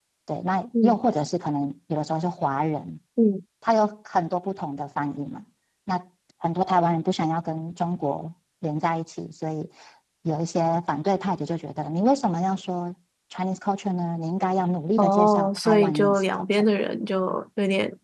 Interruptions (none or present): present